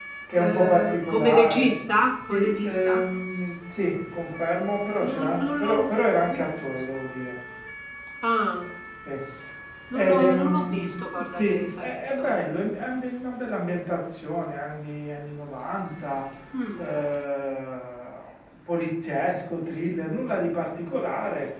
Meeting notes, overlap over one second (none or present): present